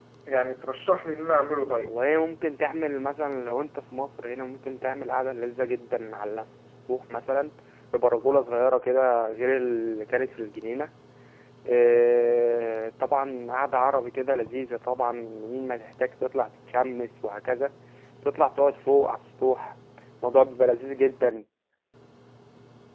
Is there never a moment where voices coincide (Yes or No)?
Yes